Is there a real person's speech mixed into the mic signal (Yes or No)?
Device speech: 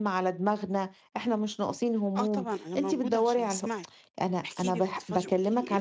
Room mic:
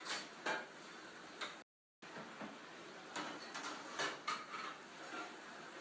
No